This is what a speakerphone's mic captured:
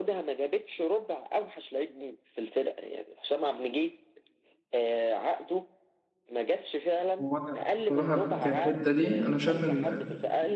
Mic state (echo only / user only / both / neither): both